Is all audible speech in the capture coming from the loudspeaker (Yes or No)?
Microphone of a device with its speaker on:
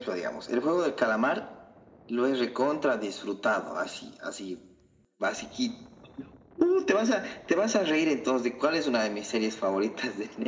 Yes